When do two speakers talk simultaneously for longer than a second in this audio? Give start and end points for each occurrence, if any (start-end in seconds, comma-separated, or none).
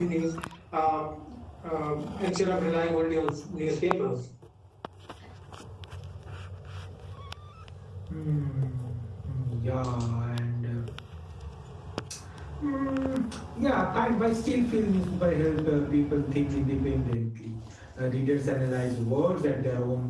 none